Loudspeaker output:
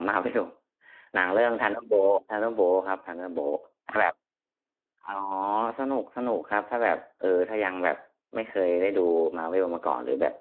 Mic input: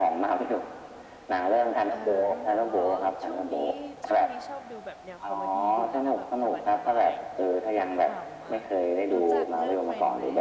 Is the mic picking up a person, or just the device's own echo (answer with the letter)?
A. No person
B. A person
B